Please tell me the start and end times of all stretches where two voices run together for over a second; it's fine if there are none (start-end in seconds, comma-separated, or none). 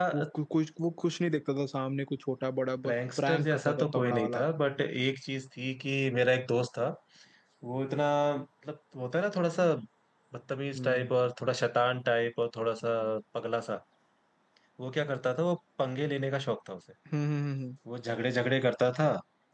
2.8-4.4